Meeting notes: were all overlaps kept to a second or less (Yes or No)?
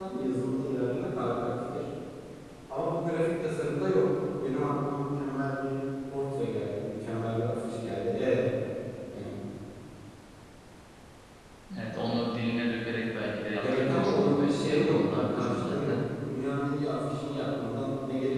No